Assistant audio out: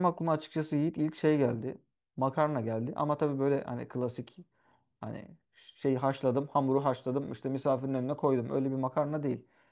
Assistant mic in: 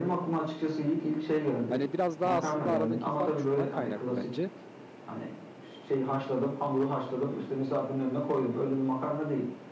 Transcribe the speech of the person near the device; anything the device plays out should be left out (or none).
Hani biraz daha aslında aradaki fark şundan kaynaklı bence.